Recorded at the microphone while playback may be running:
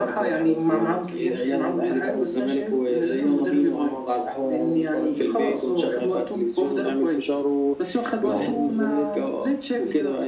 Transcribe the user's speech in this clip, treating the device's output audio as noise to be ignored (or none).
اه ايوه ايوه